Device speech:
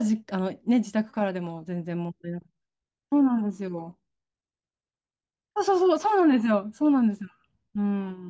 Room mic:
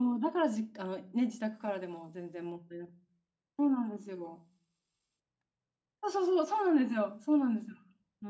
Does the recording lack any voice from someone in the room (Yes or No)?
Yes